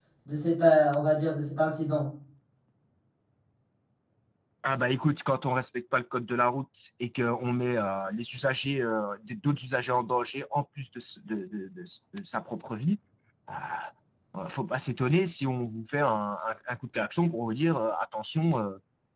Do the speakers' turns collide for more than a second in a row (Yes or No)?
No